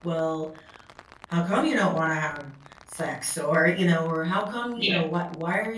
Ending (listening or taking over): listening